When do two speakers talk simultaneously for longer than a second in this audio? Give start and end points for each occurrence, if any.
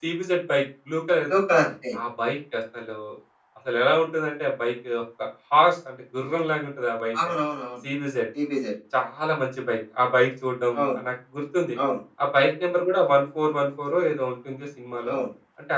none

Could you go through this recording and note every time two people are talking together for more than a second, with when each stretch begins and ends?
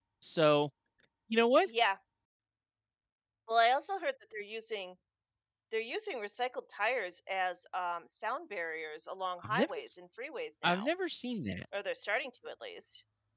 none

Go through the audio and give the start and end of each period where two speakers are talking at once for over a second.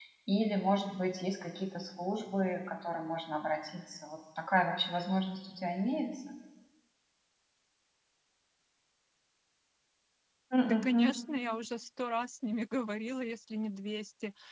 none

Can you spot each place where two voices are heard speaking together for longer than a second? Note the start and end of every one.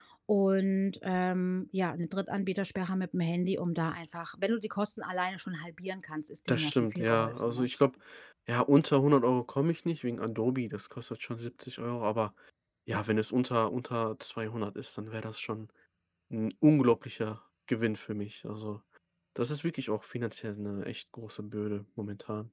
6.5-7.7

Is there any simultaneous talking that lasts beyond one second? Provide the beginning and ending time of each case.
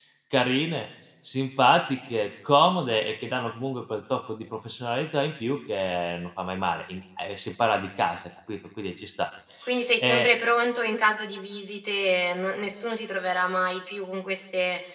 none

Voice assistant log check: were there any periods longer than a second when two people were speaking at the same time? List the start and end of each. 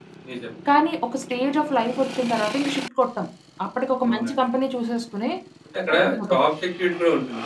none

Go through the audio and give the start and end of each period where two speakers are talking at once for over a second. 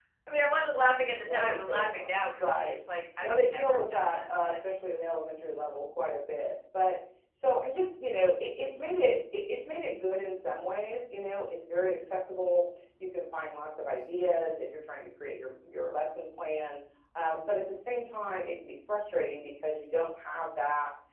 1.2-2.8, 3.2-4.5

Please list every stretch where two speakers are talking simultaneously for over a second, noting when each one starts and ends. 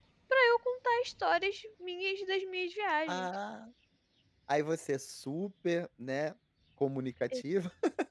none

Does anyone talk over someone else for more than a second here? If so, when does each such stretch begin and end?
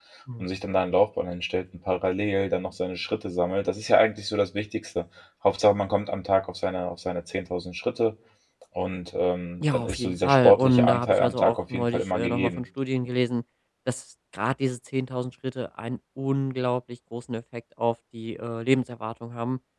9.6-12.6

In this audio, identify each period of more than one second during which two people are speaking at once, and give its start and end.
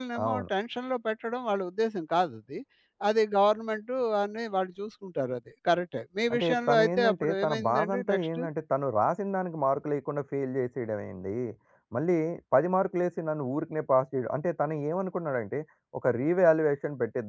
6.3-8.4

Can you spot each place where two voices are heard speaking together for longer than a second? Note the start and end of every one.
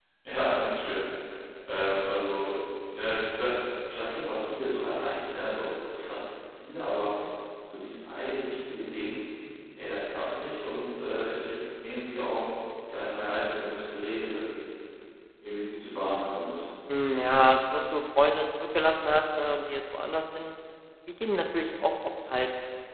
none

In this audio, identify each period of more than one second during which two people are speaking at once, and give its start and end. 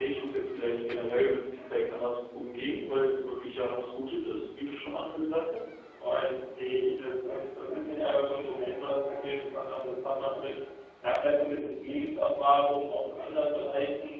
none

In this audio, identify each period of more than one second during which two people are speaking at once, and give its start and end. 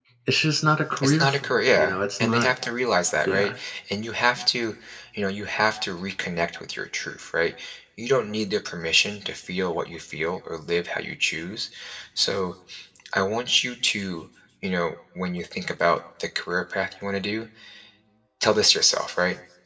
1.0-2.5

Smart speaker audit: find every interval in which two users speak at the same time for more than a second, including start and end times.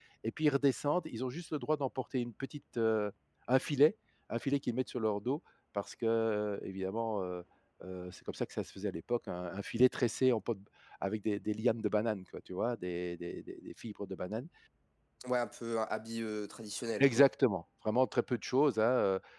none

